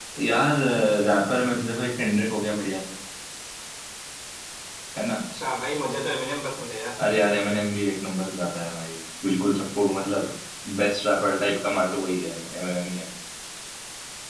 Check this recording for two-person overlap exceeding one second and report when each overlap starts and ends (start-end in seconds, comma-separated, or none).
none